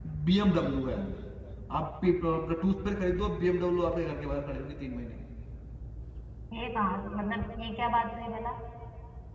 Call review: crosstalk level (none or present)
none